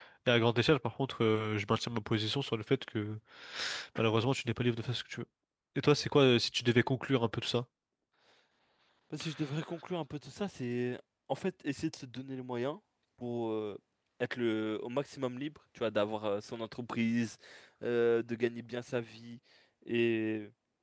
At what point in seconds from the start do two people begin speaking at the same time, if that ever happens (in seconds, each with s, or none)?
none